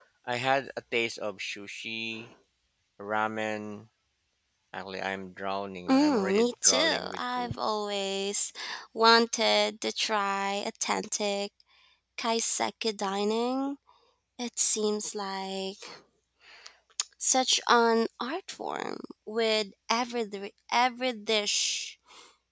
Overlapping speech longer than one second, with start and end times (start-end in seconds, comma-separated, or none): 5.9-7.5